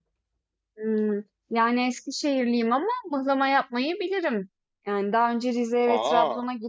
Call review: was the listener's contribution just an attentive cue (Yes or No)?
Yes